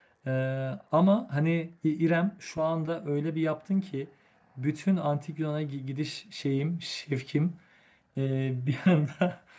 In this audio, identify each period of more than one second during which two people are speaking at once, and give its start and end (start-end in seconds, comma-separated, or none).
none